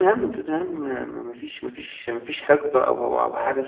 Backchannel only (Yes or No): Yes